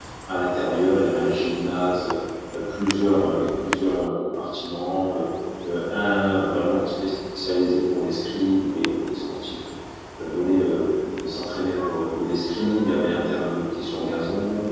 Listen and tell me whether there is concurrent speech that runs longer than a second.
No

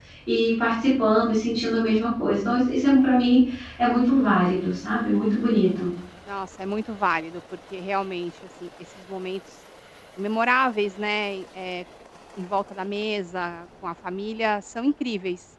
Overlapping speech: No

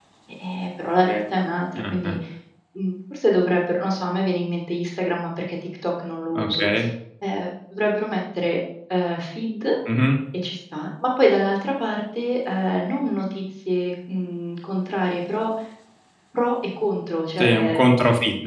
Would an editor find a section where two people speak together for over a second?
No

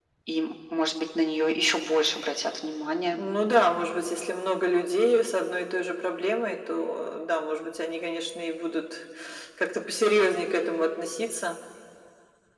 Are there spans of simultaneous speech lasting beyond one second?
No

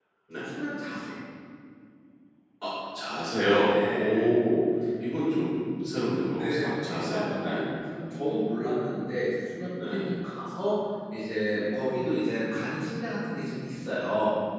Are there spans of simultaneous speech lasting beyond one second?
Yes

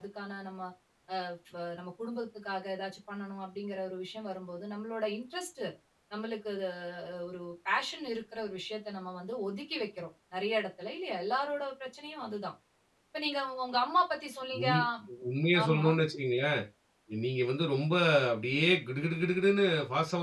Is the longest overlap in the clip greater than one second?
No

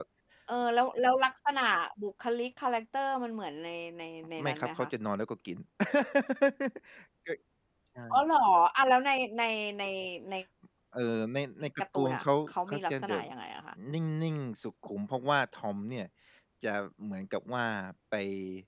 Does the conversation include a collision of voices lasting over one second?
Yes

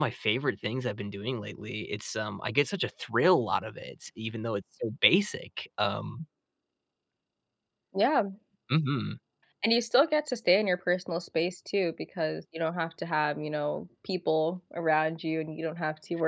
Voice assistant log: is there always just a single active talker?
Yes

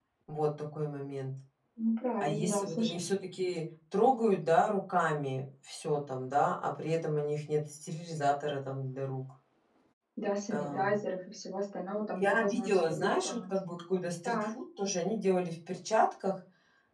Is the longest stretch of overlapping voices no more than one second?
No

